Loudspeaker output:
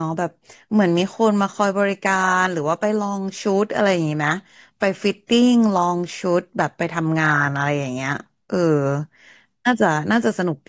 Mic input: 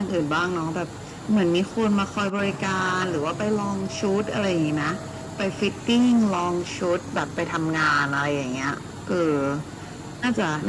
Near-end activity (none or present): none